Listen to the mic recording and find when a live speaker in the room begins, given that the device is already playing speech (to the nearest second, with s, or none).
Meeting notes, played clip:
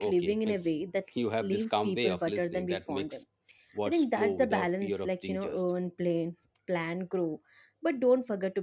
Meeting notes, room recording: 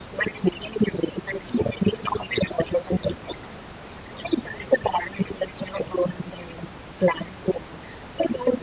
none